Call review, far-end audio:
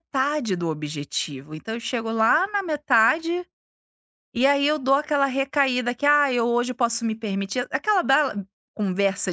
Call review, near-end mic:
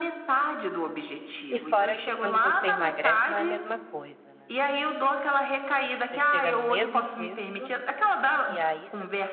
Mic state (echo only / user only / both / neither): both